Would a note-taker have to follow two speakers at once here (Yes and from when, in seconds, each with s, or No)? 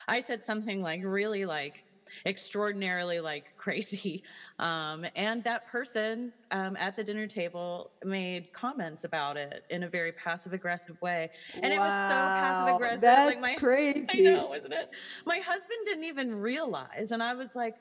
Yes, from 11.5 s